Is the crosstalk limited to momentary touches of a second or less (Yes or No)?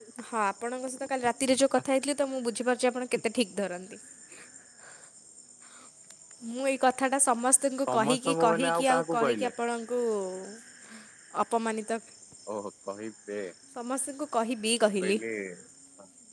No